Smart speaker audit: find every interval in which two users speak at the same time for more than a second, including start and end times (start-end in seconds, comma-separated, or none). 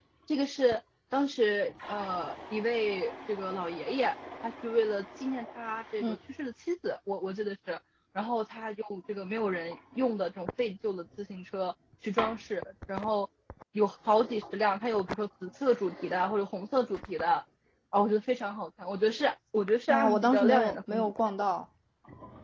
19.9-21.1